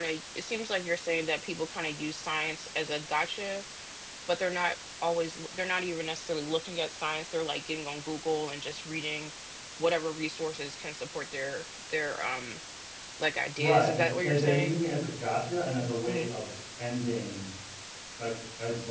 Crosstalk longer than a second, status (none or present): present